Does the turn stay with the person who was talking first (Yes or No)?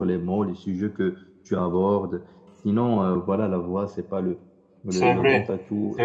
No